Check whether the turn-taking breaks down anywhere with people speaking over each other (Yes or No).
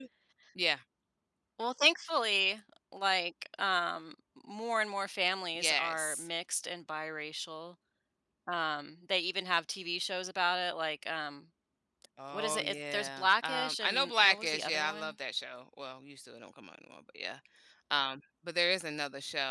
Yes